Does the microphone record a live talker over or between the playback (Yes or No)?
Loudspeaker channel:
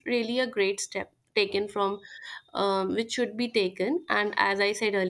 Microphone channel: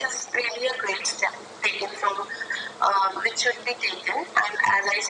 No